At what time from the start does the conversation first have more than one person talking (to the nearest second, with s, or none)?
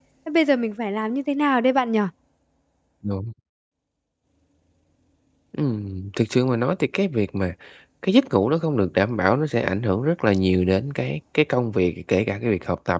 none